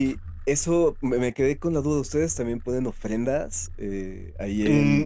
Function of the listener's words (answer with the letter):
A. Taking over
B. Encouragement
A